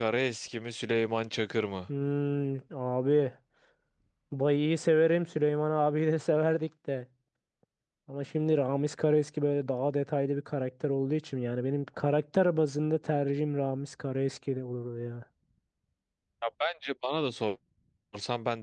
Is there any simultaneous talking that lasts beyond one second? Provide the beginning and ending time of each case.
none

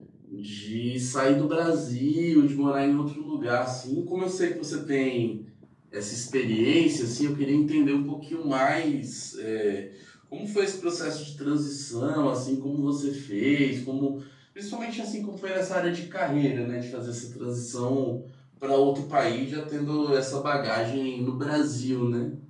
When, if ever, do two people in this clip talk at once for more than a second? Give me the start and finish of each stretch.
none

